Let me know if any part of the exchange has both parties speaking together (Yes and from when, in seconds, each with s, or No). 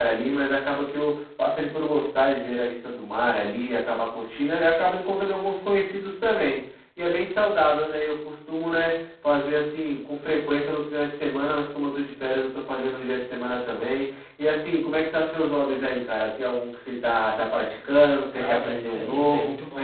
Yes, from 18.3 s